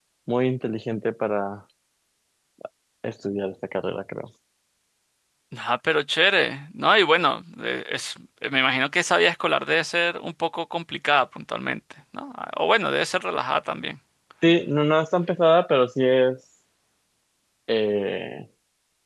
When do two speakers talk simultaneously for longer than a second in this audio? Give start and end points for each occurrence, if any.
none

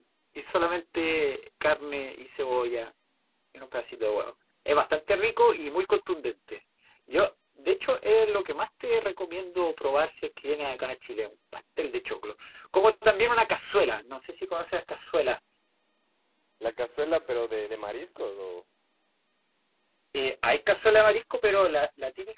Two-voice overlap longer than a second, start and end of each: none

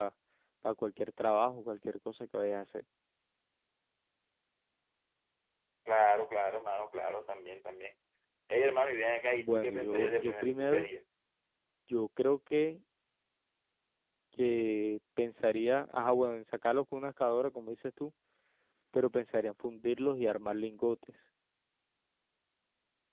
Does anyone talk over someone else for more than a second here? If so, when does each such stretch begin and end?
9.4-10.9

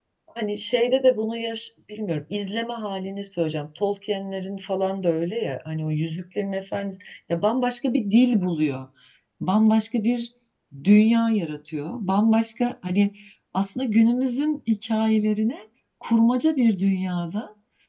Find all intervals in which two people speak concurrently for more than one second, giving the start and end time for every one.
none

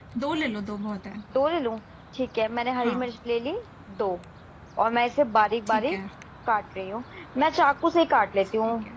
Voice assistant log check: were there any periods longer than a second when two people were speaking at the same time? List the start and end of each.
none

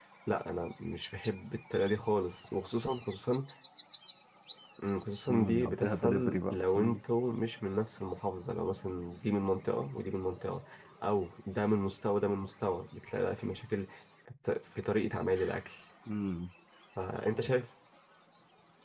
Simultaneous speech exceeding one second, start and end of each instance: 5.3-7.0

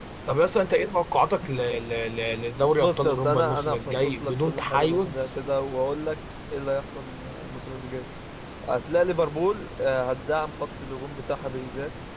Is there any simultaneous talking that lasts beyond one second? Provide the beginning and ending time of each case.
2.8-5.3

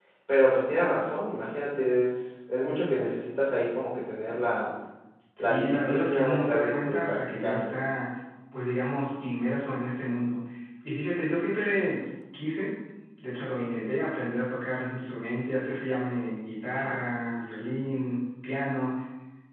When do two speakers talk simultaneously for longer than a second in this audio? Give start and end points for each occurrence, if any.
5.4-7.7

